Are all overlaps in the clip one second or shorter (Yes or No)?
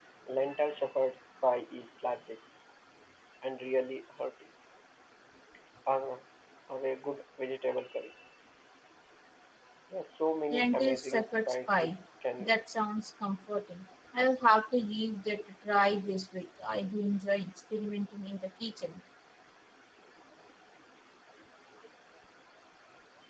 No